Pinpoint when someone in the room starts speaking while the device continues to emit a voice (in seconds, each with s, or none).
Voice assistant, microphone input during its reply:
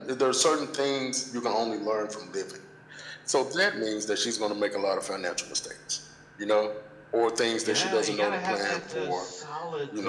7.6 s